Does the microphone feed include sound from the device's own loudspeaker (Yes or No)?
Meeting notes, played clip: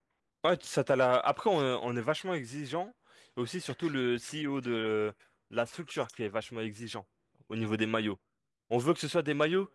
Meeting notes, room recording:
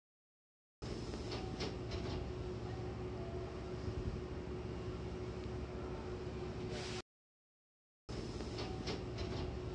No